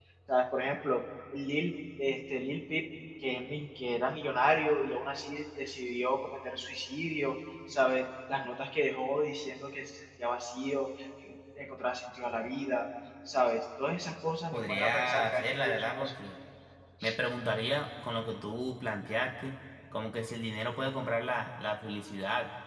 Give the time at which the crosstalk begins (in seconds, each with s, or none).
14.5 s